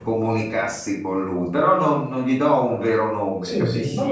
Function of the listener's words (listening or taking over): taking over